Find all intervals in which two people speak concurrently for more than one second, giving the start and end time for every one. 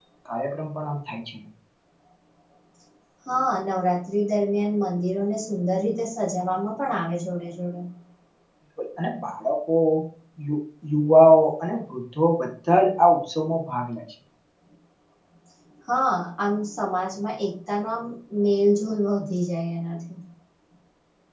none

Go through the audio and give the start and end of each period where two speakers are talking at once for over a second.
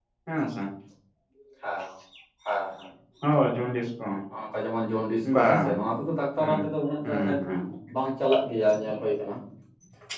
none

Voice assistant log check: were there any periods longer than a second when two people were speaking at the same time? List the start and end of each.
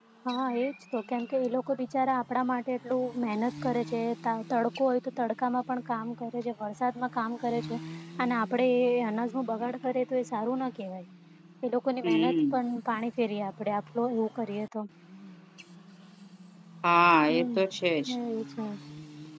none

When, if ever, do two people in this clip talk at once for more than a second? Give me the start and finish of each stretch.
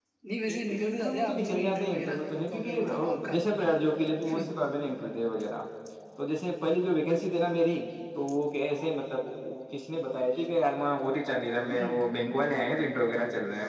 0.5-3.3

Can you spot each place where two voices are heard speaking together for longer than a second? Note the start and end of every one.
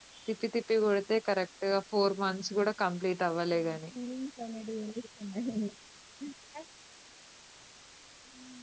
none

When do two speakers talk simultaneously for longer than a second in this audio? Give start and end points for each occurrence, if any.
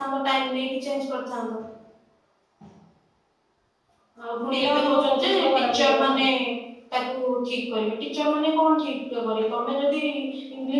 4.5-6.2

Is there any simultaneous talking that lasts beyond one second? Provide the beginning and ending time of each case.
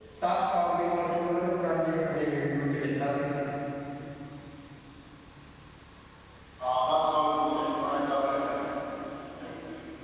none

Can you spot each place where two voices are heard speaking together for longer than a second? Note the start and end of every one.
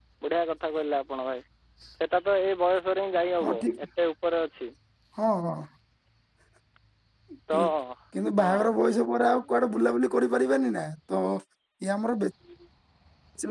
none

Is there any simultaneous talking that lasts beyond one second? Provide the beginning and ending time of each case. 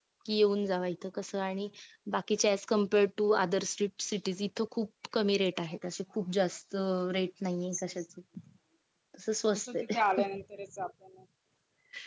none

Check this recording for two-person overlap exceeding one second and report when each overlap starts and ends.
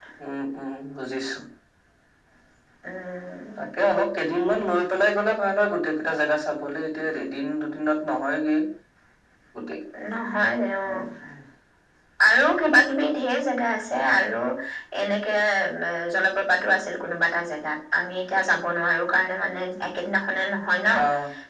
none

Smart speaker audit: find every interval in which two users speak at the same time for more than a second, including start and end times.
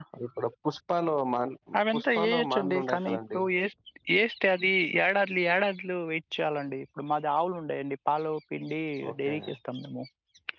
1.9-3.4

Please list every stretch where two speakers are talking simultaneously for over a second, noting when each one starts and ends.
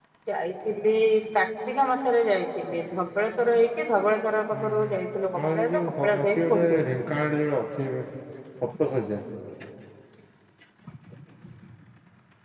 5.5-7.0

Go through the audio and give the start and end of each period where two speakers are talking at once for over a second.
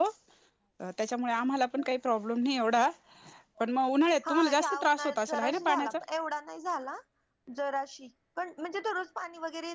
4.3-5.9

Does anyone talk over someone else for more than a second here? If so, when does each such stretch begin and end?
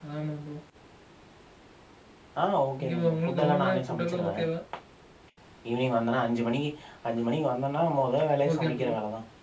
2.8-4.3

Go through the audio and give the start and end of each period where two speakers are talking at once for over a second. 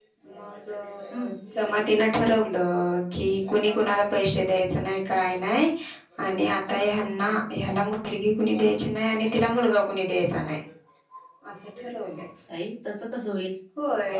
none

